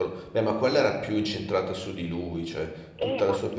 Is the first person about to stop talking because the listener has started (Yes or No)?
Yes